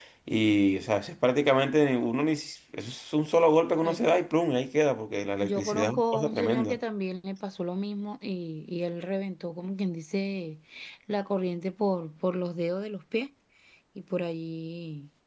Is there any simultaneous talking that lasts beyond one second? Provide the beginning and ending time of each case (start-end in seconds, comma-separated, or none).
5.4-6.8